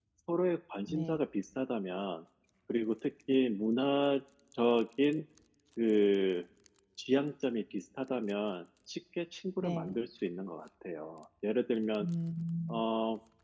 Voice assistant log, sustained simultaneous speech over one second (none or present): none